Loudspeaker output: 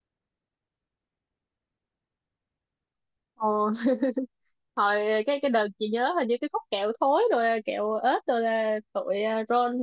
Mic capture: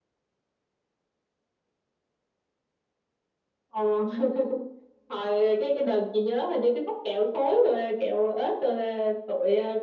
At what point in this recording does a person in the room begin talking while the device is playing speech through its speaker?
none

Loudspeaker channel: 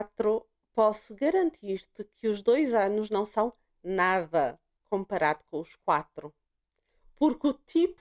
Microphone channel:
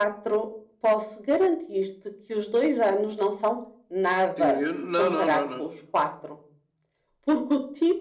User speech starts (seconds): 4 s

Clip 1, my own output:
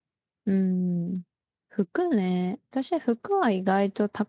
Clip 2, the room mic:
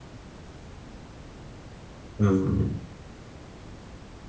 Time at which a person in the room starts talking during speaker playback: 2 s

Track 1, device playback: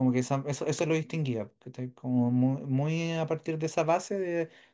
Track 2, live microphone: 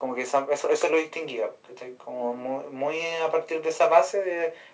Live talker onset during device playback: none

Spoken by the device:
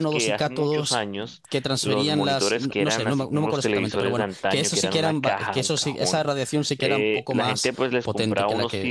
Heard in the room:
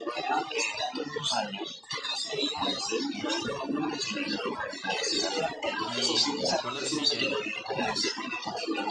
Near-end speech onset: 6 s

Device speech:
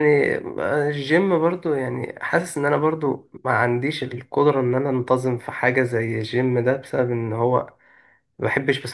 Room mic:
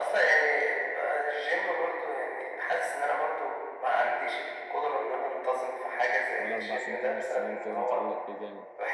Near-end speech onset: 6 s

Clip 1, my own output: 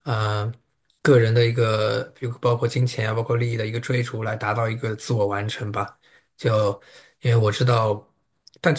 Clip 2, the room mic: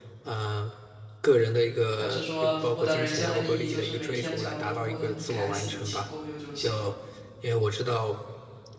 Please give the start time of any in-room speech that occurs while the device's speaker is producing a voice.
2 s

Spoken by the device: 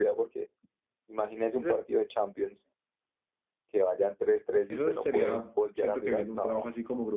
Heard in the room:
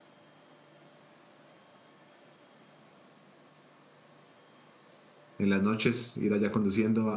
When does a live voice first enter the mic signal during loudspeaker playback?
5 s

